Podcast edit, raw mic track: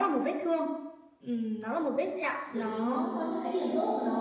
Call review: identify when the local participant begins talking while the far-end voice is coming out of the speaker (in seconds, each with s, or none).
2.5 s